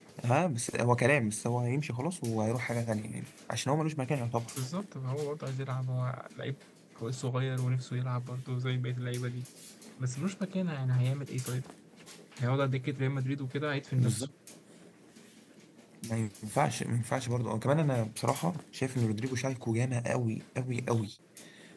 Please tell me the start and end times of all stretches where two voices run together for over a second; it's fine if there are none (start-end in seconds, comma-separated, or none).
none